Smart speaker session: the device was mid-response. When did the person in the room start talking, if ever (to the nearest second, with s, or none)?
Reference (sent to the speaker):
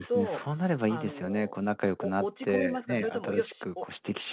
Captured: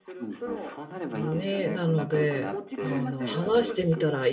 1 s